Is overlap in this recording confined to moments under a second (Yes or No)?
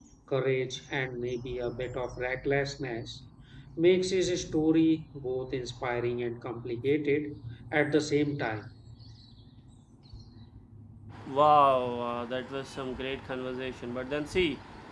Yes